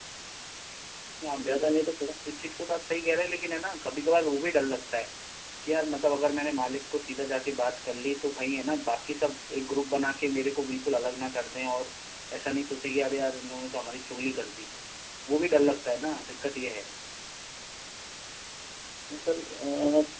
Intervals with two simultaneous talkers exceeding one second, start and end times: none

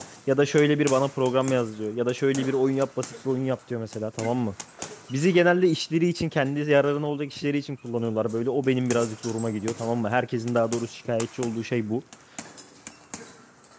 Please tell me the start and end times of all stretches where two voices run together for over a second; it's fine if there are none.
none

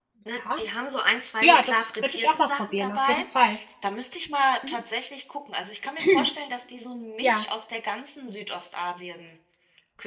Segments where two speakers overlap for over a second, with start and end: 1.4-3.2

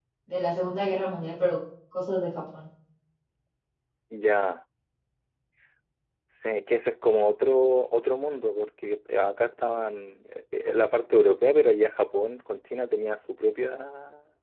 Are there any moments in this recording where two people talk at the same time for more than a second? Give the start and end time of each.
none

